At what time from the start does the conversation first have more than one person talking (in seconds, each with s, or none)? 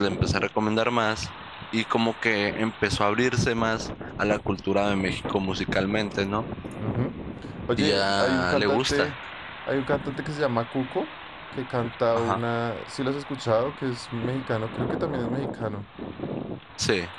7.8 s